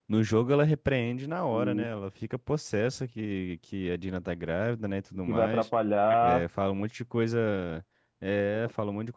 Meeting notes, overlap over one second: none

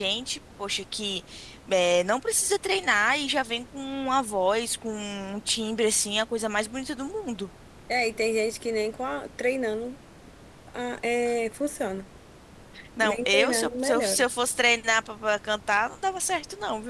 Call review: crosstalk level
present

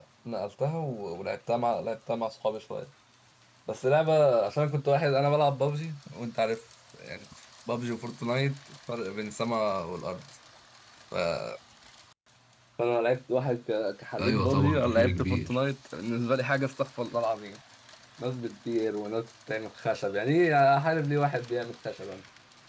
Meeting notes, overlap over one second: present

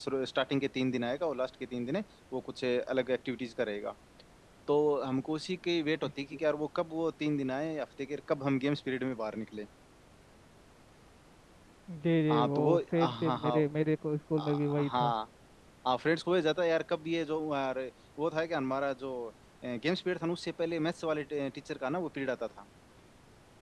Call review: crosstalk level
present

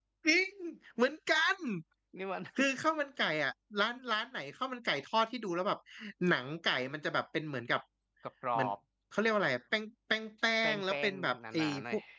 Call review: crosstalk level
present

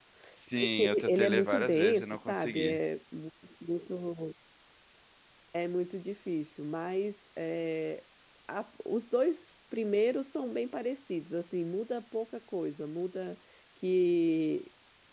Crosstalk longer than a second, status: present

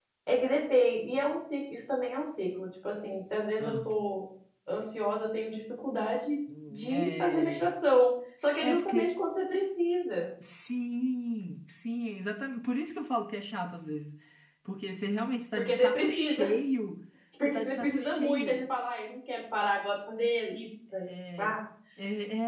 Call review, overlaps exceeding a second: present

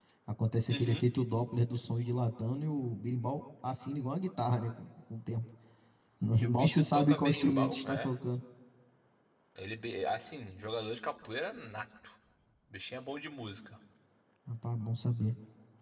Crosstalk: present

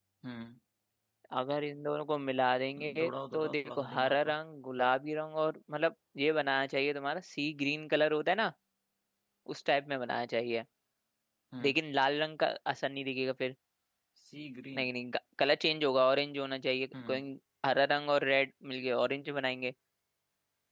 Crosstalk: present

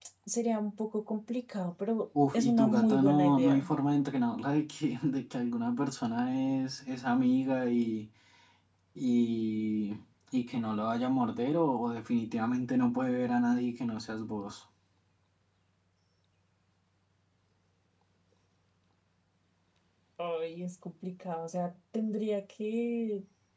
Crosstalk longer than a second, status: present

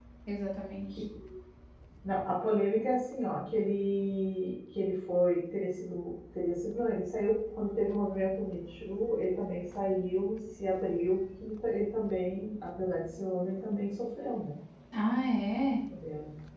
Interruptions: none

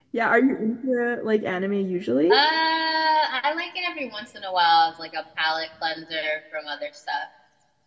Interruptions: none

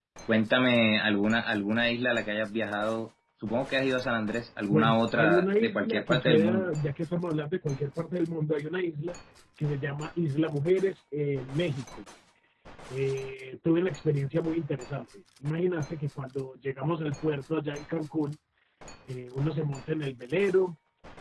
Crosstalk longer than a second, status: present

